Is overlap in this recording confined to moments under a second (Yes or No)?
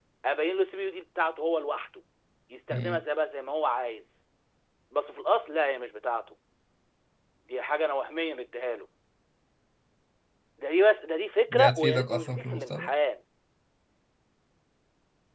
No